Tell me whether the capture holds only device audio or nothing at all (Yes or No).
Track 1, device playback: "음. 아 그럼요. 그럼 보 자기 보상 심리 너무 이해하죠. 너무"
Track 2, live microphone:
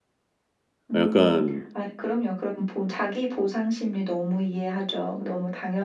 No